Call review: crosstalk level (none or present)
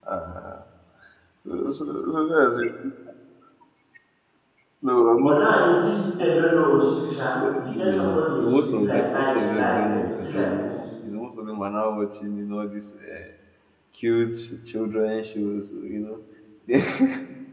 present